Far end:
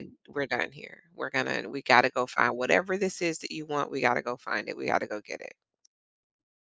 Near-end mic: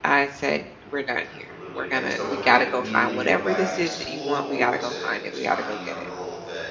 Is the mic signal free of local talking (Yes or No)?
No